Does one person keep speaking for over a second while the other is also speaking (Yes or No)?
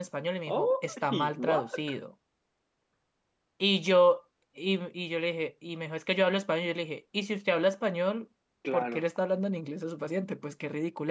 Yes